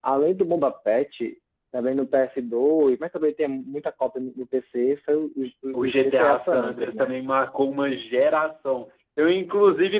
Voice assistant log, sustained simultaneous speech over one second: present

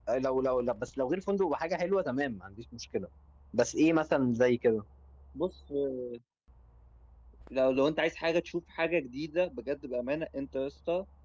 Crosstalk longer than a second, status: none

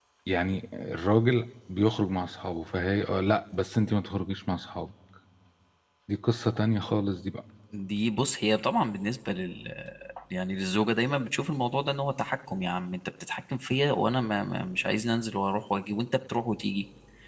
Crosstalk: none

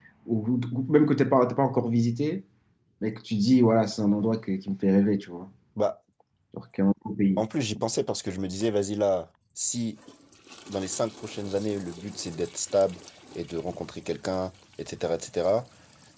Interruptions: none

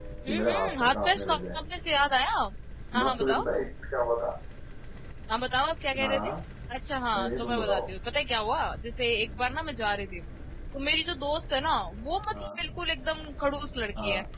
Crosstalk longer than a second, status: present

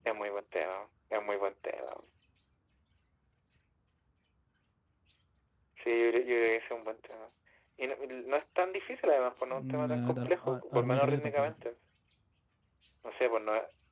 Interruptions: present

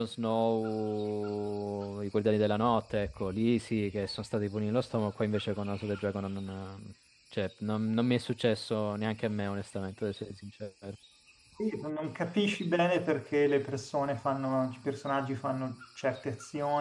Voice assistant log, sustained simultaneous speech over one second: none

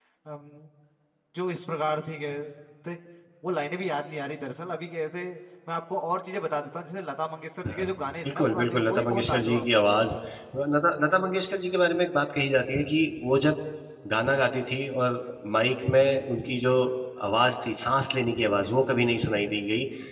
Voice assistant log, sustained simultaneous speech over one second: present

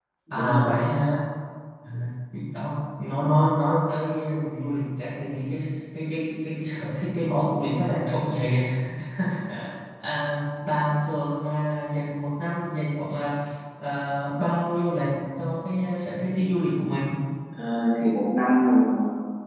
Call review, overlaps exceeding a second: none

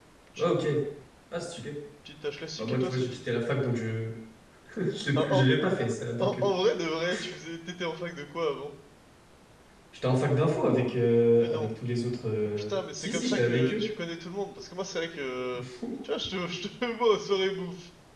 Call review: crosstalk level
present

